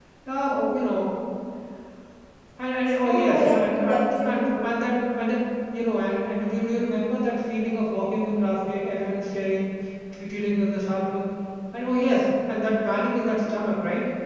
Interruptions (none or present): present